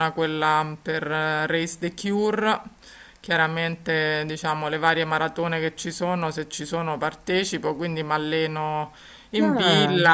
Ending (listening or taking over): listening